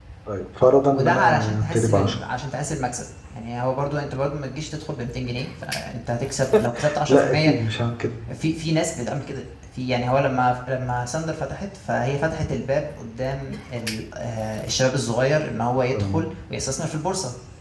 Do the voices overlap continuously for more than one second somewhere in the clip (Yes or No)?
Yes